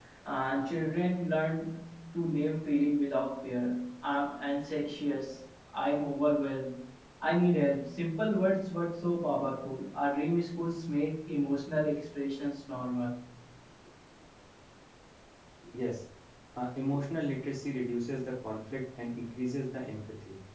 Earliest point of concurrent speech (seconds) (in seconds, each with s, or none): none